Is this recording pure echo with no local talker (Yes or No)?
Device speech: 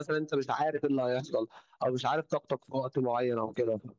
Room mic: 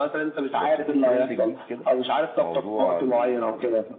No